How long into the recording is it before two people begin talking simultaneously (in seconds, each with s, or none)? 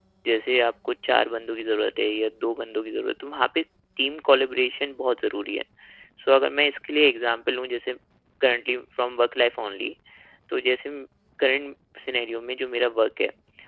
none